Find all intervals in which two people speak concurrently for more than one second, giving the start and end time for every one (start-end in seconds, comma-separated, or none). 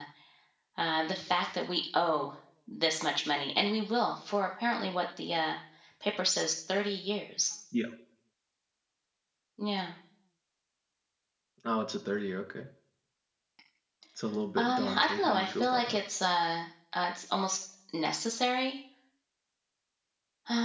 14.6-16.0